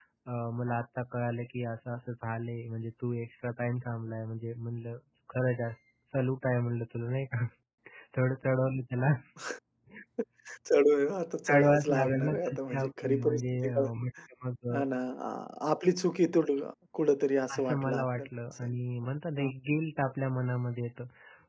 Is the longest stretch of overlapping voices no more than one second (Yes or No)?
No